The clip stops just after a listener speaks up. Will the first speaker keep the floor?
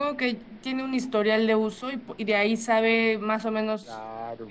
No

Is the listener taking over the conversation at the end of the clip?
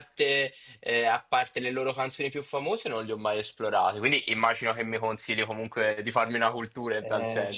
Yes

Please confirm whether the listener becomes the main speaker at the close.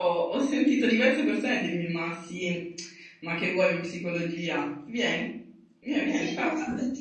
Yes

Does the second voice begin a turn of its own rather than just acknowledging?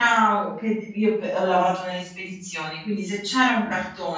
No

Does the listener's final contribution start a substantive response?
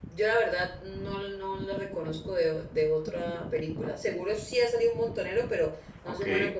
No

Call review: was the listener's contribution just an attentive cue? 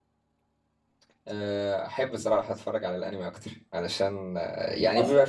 Yes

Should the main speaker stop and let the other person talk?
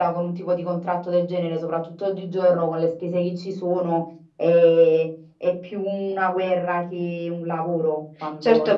Yes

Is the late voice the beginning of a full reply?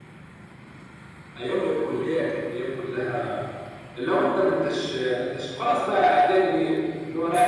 Yes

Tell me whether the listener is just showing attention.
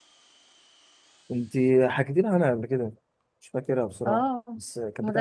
No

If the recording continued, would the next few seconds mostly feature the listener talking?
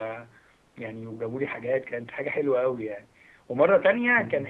No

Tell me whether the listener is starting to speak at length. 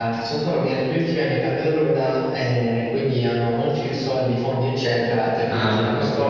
No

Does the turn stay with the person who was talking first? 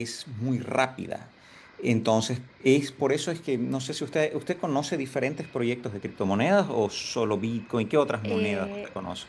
No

